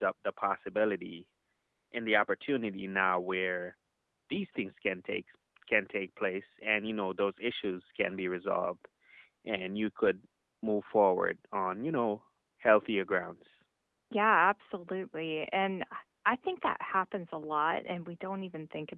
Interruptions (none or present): none